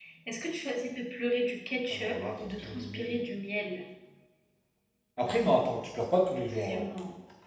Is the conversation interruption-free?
No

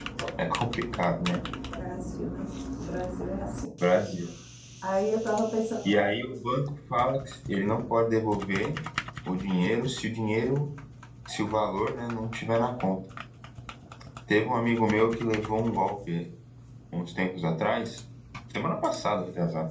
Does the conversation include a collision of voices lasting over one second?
No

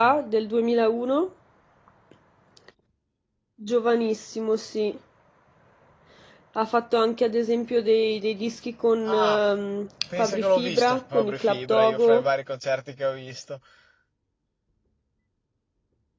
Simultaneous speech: Yes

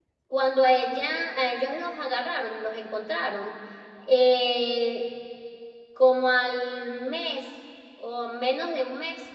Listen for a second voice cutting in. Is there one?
No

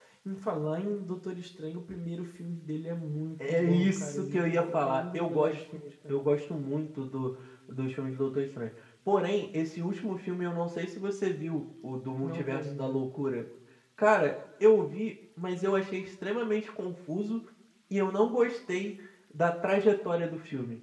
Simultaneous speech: Yes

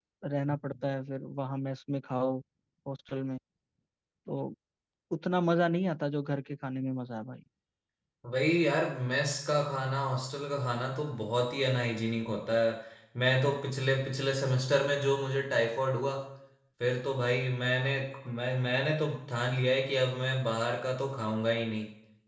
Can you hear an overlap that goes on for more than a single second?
No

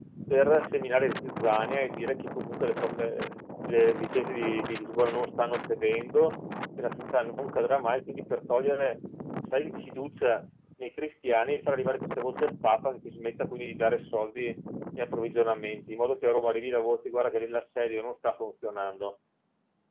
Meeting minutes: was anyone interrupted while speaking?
No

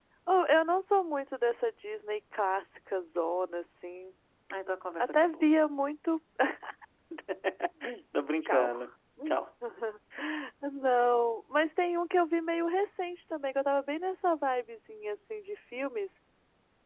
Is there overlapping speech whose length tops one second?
No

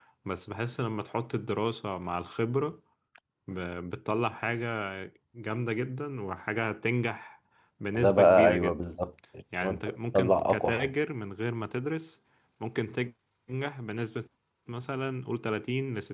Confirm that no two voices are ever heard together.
No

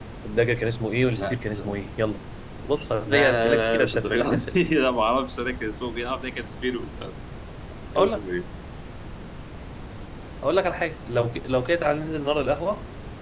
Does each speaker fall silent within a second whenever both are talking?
No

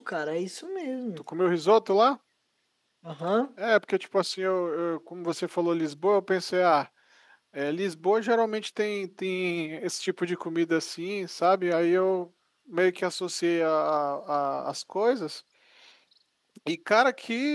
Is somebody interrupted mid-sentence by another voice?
No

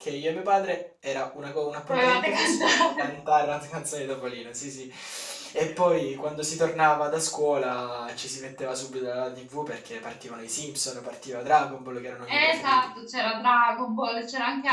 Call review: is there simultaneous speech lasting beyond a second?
Yes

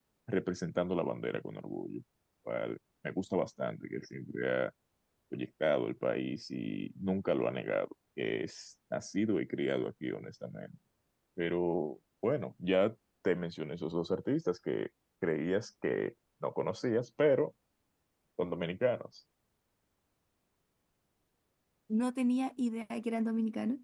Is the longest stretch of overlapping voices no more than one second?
Yes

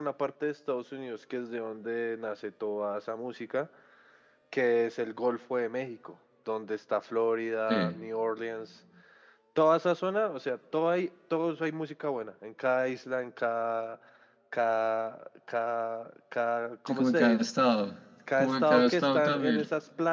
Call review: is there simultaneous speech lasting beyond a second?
Yes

